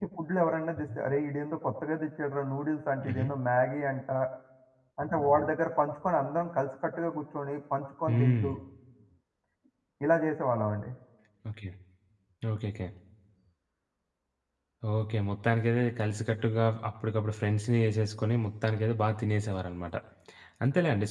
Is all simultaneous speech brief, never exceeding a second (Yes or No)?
Yes